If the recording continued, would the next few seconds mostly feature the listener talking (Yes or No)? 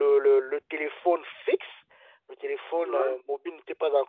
No